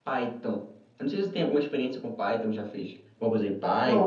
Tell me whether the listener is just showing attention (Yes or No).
No